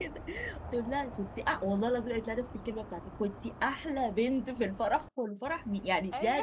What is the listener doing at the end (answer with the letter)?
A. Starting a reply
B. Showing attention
B